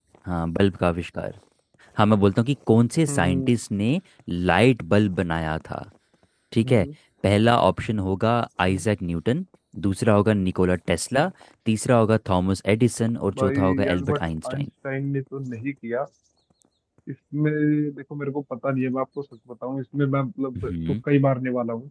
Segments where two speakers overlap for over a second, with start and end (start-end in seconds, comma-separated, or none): 13.3-14.7